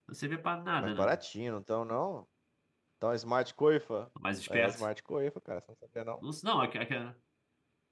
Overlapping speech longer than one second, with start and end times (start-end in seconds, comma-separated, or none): none